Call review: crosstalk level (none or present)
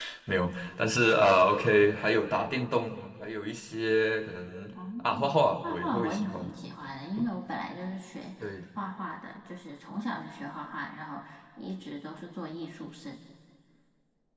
present